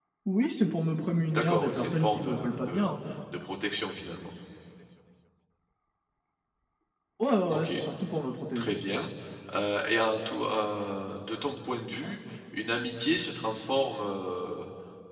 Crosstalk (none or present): present